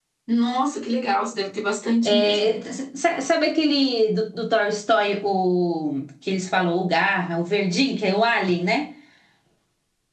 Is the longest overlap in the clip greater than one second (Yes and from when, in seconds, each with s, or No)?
No